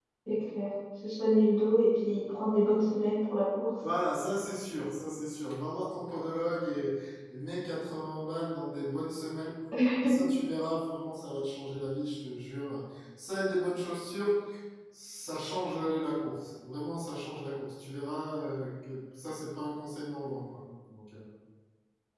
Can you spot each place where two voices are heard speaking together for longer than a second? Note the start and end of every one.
none

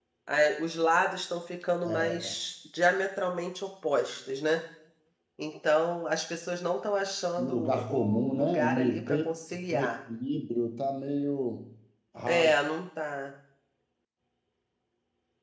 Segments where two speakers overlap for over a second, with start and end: 7.4-9.2

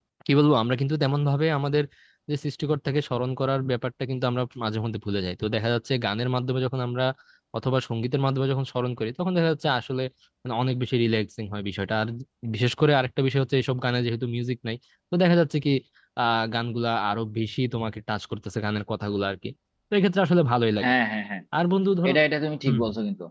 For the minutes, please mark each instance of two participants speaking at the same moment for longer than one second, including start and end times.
none

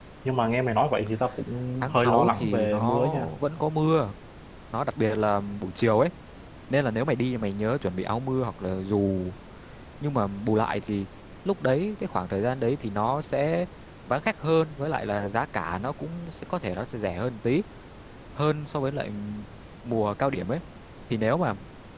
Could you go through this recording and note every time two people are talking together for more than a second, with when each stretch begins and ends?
1.8-3.3

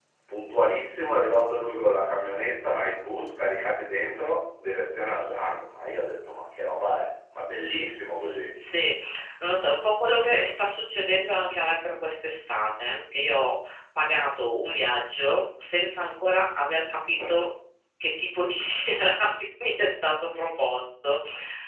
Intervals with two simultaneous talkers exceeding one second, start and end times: none

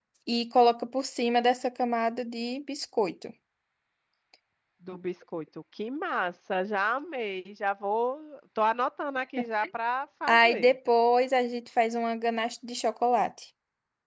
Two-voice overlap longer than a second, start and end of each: none

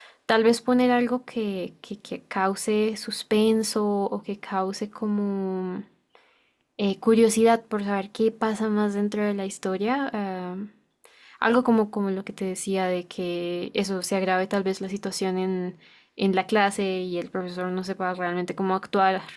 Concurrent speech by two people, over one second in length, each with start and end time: none

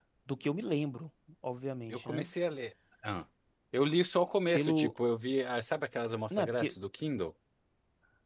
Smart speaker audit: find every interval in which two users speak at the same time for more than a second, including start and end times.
none

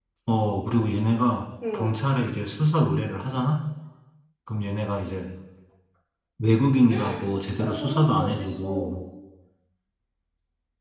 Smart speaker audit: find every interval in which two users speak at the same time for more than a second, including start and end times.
7.6-9.0

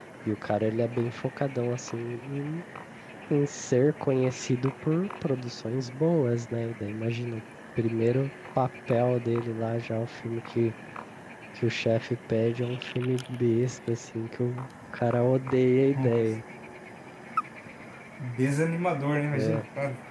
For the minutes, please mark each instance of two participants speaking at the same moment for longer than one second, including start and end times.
none

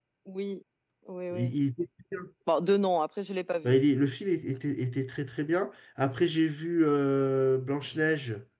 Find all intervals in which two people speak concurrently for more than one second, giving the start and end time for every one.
none

